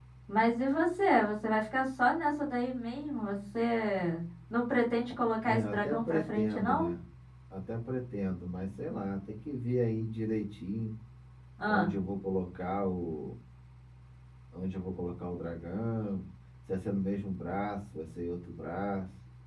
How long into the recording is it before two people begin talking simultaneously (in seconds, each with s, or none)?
5.4 s